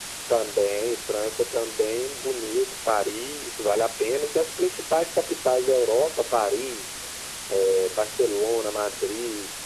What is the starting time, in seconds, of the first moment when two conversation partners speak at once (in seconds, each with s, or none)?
none